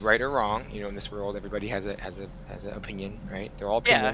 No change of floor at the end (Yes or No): No